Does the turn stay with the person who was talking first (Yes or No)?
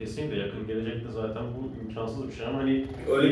No